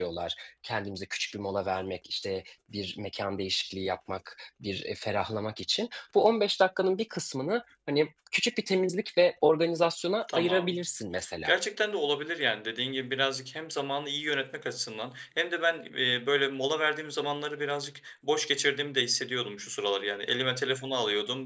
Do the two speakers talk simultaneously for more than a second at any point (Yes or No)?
No